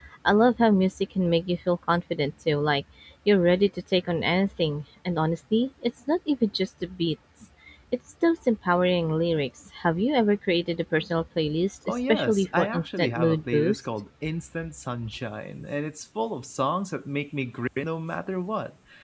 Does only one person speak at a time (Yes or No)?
No